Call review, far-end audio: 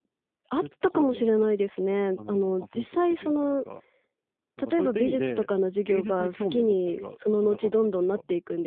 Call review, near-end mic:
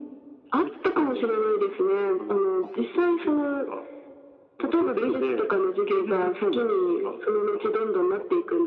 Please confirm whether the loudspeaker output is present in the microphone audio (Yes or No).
Yes